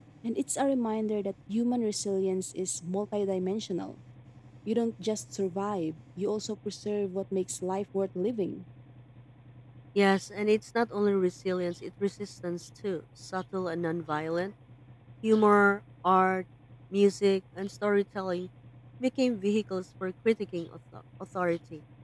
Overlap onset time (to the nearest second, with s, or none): none